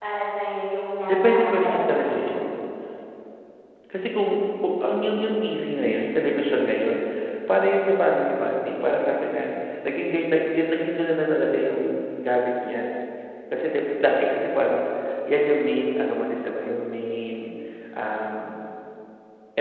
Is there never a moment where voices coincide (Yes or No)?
No